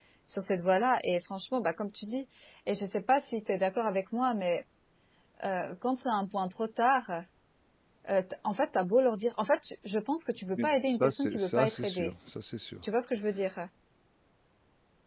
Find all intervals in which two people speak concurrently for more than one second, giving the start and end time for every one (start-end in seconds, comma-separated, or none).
10.6-12.1